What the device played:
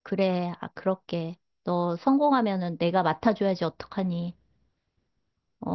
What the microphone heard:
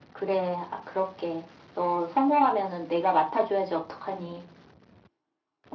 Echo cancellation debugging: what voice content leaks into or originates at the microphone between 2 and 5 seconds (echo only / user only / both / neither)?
echo only